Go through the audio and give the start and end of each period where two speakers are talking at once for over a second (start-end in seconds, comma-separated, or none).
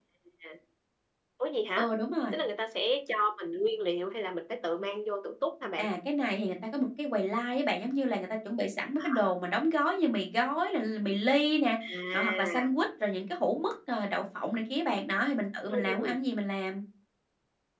none